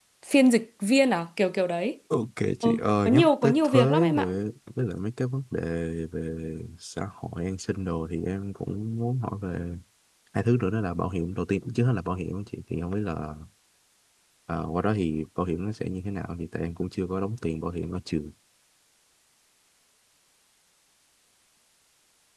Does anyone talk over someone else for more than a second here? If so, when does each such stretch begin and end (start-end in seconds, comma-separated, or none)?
2.6-4.3